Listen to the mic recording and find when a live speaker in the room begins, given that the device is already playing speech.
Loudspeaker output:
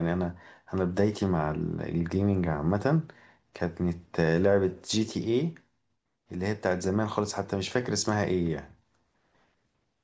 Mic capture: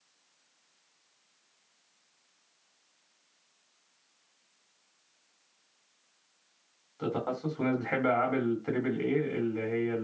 7.0 s

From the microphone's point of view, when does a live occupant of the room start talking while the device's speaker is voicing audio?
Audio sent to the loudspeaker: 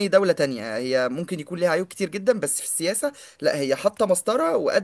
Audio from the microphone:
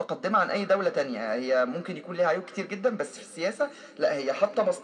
none

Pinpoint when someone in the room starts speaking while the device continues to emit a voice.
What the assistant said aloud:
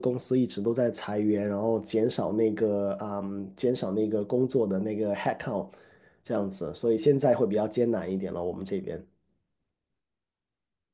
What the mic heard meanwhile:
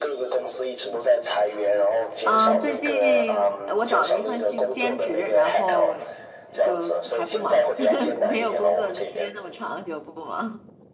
2.2 s

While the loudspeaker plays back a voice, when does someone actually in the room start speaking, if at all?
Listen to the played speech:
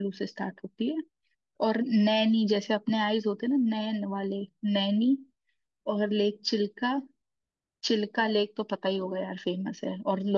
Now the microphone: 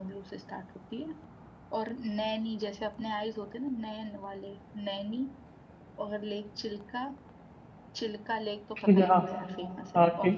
8.8 s

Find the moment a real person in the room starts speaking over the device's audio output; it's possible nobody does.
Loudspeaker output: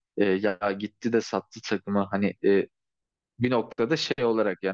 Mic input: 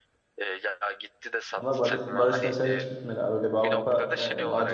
1.6 s

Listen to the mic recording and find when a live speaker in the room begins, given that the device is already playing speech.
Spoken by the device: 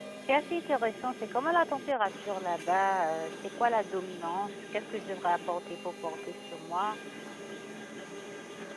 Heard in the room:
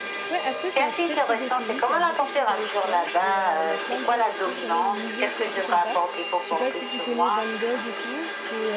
0.3 s

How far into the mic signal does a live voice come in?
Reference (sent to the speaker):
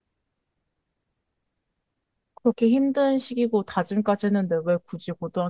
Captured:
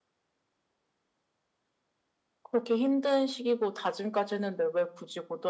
none

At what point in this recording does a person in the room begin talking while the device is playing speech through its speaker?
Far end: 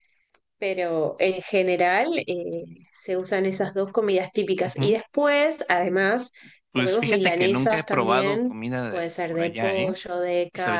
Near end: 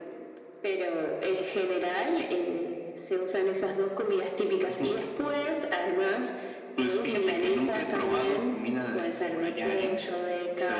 none

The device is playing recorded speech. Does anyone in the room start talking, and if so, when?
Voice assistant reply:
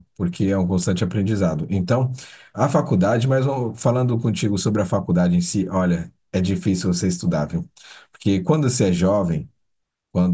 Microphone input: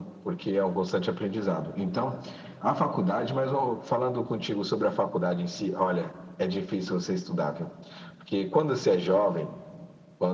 none

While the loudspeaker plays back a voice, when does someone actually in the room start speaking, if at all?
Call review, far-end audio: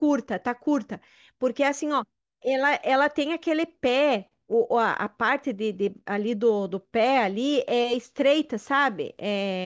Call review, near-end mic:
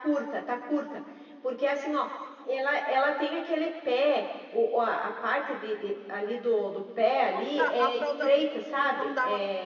7.2 s

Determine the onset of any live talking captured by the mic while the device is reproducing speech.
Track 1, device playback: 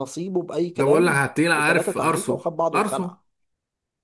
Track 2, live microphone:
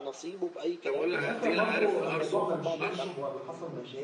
1.1 s

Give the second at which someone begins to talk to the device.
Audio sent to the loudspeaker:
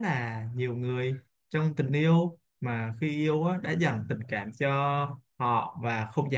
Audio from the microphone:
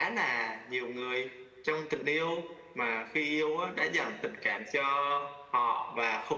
none

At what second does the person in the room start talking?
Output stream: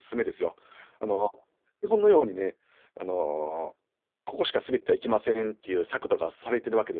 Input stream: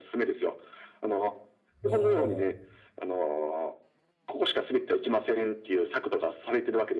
1.8 s

